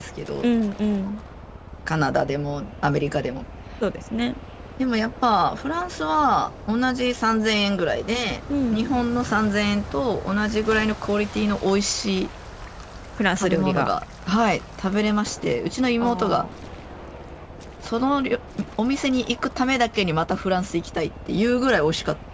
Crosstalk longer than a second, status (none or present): none